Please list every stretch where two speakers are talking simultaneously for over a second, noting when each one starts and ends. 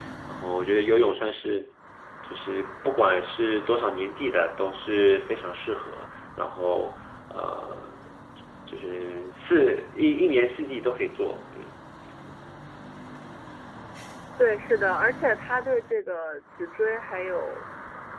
none

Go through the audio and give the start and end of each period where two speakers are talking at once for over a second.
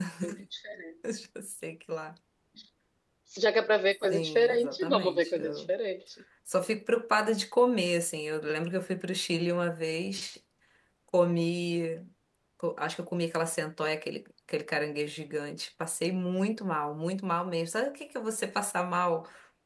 4.0-5.7

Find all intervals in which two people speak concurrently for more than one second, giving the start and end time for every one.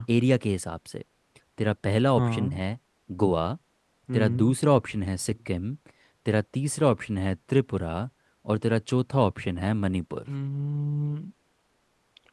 none

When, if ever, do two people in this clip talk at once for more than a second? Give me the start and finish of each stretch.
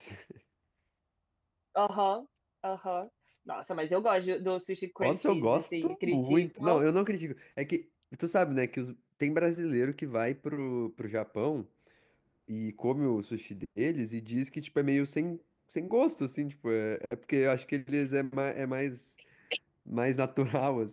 5.0-6.8

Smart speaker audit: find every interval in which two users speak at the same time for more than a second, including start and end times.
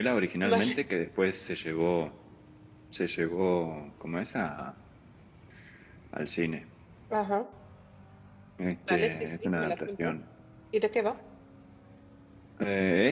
8.9-10.1

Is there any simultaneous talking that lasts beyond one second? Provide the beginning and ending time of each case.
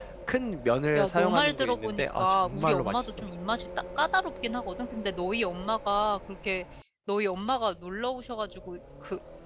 1.0-3.2

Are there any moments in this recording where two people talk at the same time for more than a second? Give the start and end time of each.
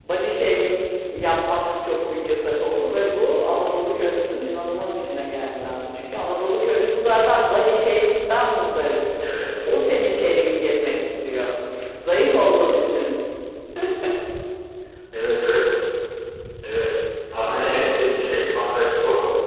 none

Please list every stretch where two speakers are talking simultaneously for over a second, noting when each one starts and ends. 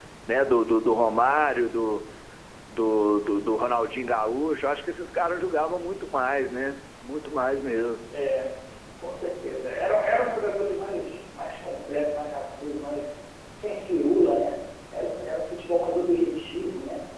none

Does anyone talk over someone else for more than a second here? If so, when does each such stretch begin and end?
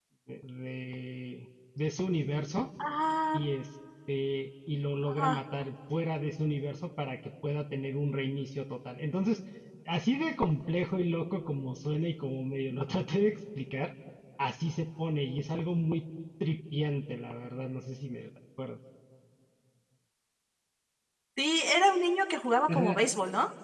none

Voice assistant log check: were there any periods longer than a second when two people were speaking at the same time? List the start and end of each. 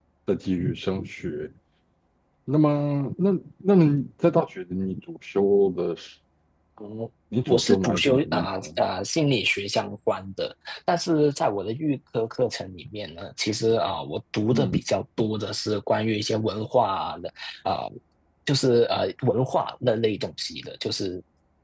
7.5-8.7

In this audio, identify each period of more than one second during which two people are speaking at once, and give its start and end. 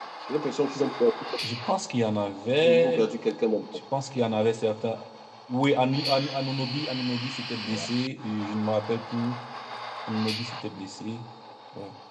none

